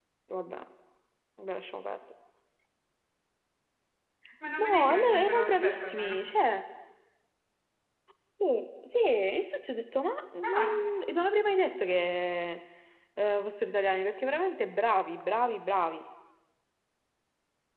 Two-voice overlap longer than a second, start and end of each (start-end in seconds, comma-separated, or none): 4.6-6.2